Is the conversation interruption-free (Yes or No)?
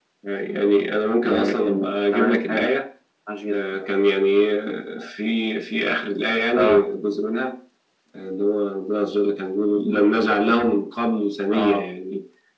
No